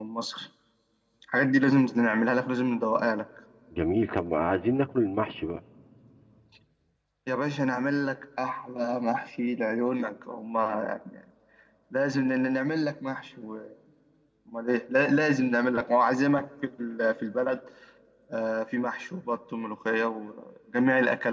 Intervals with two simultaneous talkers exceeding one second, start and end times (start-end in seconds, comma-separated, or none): none